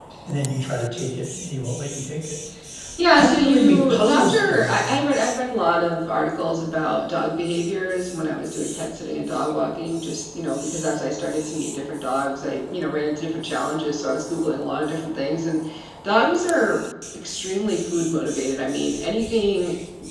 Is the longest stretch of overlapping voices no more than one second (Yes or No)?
No